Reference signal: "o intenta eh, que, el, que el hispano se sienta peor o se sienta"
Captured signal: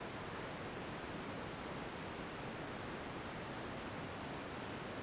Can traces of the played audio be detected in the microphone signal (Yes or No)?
No